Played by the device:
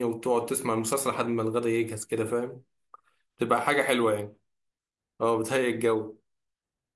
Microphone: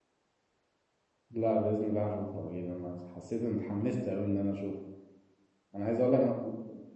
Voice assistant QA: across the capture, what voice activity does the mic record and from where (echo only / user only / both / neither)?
user only